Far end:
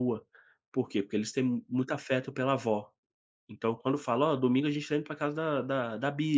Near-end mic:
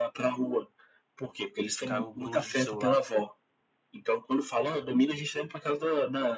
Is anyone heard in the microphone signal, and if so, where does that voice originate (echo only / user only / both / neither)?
both